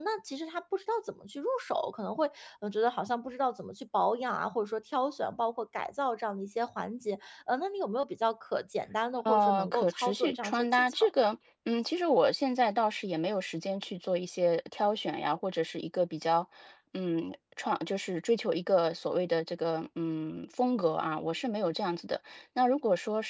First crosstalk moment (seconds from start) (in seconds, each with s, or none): 9.2 s